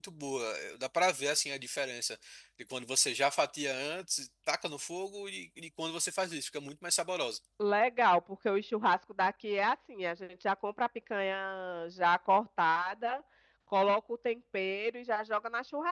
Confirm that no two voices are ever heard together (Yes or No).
Yes